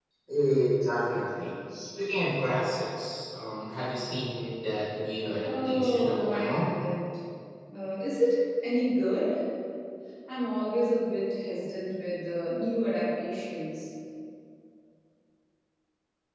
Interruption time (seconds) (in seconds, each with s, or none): 5.4 s